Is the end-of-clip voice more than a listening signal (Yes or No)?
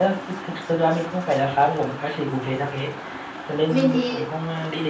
No